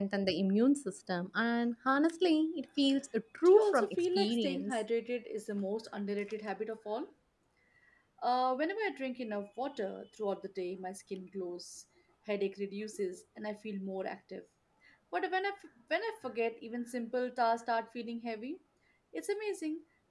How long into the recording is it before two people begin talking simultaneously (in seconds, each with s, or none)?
3.5 s